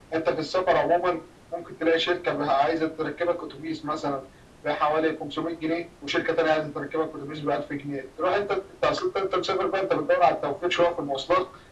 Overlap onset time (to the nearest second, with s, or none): none